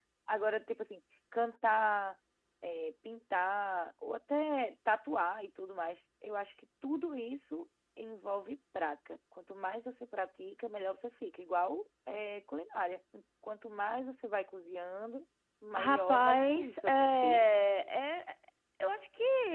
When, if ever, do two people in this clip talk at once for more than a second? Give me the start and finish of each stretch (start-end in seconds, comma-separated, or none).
15.8-17.4